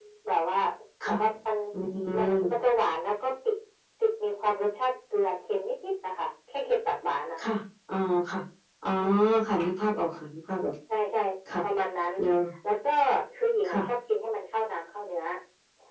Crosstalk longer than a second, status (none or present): none